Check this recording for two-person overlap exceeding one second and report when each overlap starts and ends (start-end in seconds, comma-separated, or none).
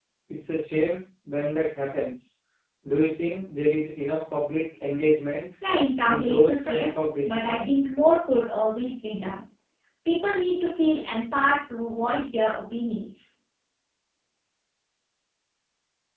6.1-7.7